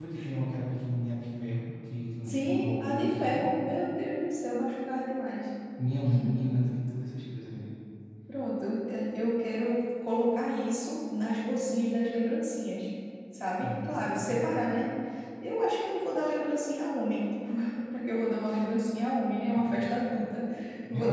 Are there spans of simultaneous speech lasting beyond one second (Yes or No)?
Yes